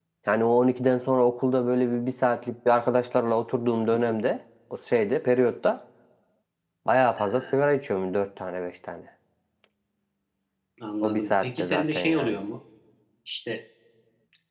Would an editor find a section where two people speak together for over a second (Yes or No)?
Yes